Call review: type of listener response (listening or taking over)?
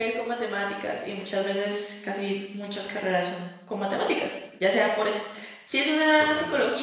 listening